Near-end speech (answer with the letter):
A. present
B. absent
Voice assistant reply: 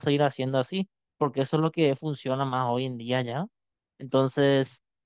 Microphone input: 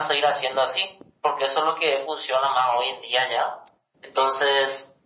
B